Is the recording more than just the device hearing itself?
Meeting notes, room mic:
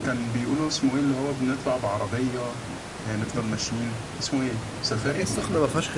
Yes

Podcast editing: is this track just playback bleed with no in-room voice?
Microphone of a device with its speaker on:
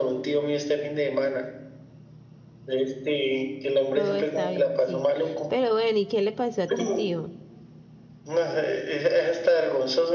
No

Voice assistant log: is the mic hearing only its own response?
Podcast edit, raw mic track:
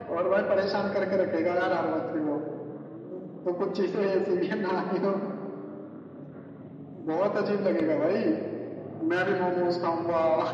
Yes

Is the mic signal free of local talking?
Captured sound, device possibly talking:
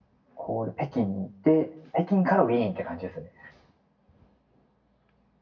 No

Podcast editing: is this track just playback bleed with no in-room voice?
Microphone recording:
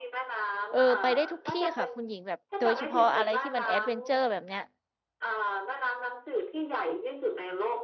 No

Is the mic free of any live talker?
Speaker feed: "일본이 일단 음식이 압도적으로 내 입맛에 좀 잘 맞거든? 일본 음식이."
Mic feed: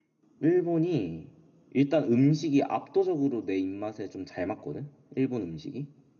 Yes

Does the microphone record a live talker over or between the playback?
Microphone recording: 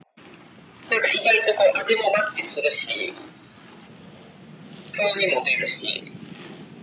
No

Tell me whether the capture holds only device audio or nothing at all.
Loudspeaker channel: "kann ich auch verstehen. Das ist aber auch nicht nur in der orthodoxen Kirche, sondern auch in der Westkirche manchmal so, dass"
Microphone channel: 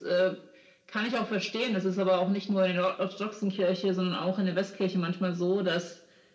Yes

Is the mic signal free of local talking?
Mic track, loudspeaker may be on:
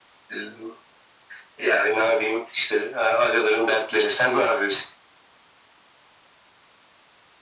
Yes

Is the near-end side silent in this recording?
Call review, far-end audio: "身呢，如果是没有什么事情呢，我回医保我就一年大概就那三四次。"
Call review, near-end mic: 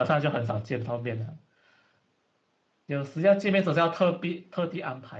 No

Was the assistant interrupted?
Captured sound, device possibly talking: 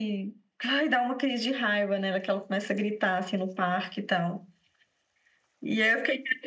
No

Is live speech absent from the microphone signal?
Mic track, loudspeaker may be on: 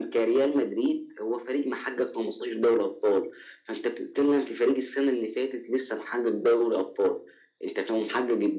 Yes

